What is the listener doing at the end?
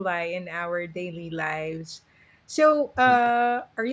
listening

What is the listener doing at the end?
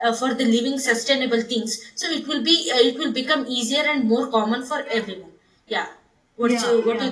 taking over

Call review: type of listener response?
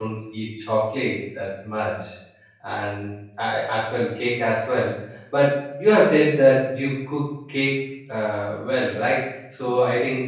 listening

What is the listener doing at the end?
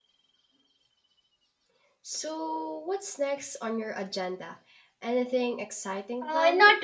taking over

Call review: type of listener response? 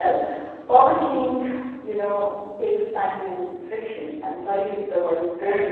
taking over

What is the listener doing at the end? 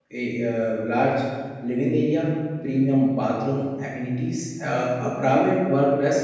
listening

